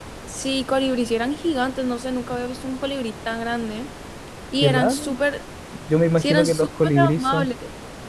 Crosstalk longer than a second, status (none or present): present